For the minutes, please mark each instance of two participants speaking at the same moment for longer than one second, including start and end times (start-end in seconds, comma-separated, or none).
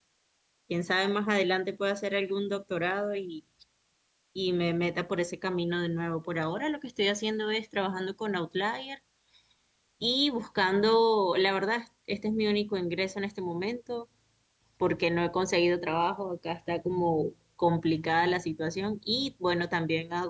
none